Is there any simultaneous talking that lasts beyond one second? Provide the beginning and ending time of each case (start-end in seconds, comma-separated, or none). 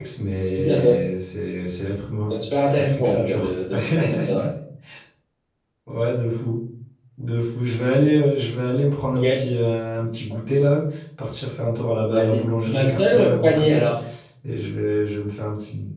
2.3-3.5, 12.1-13.9